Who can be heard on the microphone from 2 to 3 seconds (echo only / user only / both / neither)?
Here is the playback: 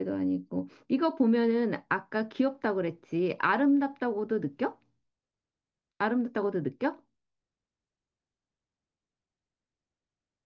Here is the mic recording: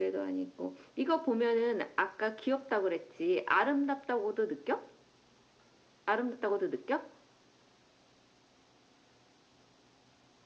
echo only